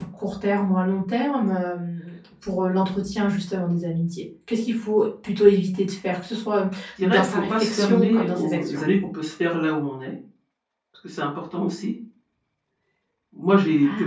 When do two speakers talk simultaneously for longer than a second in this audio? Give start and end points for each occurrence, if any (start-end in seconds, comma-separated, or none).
7.0-8.8